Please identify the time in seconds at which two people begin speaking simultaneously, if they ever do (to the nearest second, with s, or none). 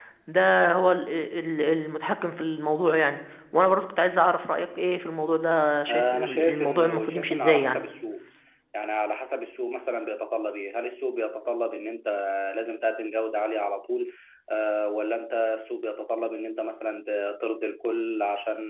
6 s